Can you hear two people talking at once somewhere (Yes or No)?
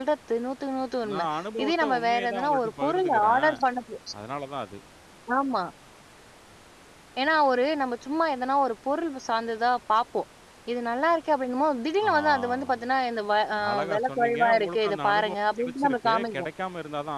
Yes